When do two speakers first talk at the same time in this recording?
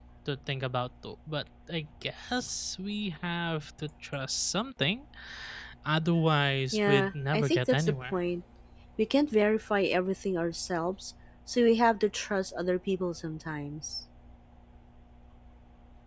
7 s

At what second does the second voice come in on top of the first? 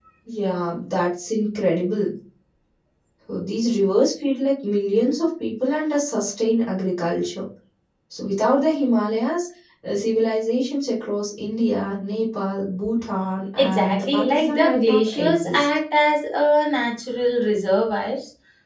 14 s

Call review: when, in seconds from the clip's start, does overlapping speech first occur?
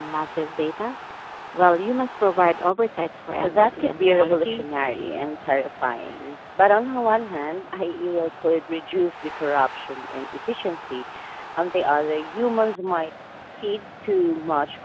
3 s

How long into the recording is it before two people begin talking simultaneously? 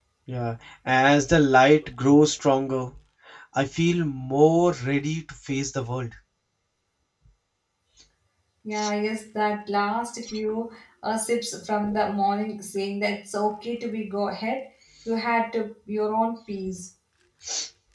none

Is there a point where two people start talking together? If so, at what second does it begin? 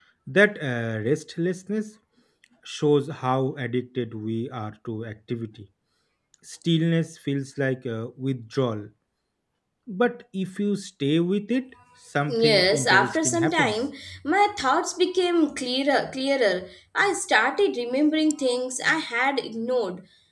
12 s

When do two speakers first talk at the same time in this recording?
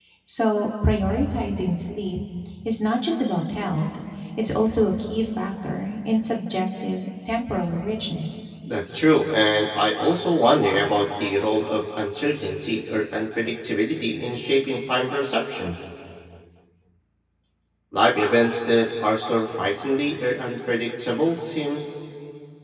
none

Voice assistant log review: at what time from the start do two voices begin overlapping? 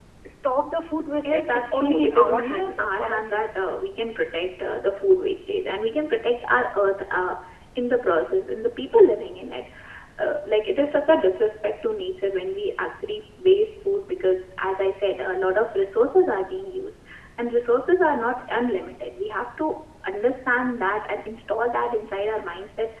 1 s

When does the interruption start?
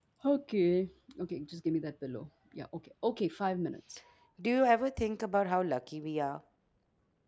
none

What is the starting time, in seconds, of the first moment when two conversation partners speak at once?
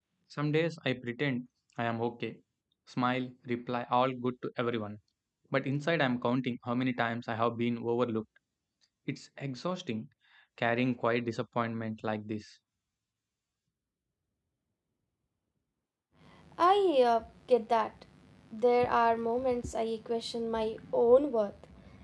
none

